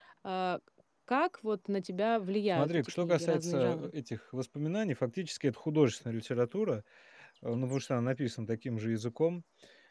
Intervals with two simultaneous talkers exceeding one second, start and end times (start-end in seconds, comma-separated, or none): 2.5-3.9